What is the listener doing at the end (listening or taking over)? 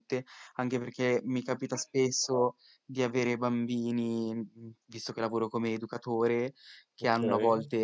listening